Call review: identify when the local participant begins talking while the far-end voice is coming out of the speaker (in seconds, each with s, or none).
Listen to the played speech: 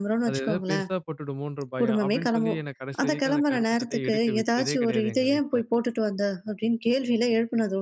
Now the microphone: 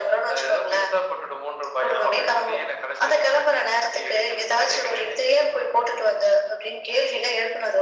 none